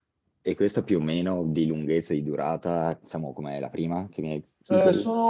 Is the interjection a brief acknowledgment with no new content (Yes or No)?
No